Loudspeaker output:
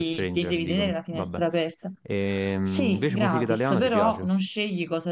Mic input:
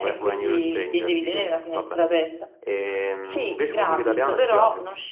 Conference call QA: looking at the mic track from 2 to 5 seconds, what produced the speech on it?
echo only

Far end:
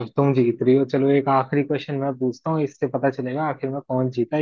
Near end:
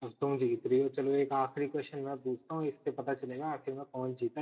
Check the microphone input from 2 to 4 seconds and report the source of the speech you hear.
echo only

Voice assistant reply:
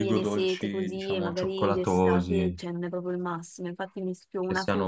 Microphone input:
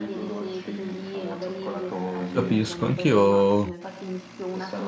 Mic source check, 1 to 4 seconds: both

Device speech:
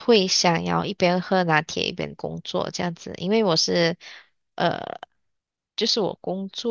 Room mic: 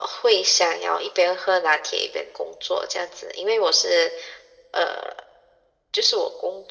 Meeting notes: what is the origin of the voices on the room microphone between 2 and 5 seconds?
echo only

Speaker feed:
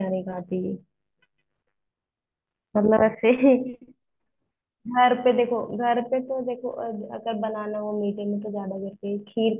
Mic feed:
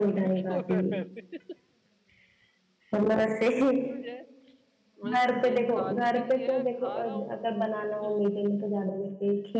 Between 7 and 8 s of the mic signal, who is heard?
both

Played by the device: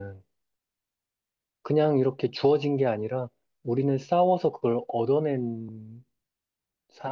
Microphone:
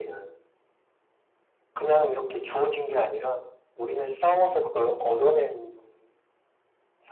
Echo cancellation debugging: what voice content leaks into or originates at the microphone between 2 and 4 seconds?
echo only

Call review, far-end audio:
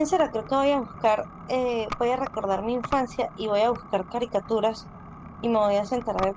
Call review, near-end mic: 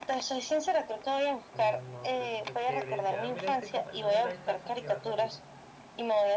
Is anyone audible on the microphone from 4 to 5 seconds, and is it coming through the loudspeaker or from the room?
both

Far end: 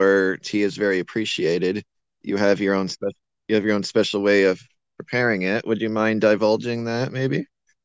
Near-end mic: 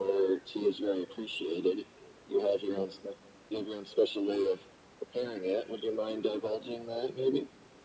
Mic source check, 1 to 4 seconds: echo only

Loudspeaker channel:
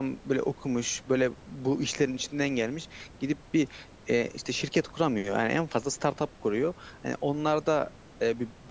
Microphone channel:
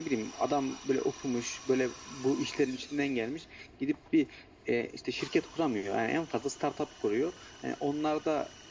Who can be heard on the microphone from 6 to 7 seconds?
echo only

